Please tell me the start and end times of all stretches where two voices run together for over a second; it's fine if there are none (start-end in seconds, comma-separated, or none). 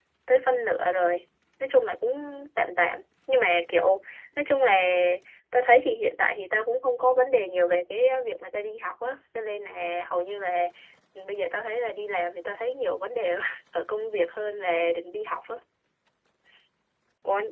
none